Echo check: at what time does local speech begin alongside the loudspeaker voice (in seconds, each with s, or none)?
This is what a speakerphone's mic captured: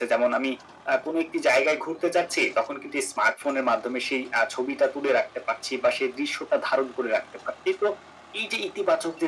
none